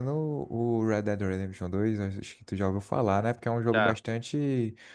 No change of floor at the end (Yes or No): Yes